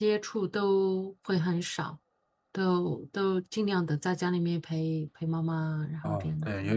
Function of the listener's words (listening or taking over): taking over